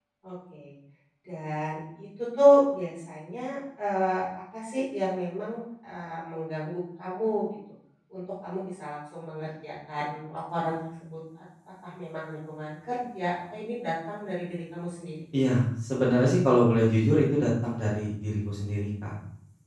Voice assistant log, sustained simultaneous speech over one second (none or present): none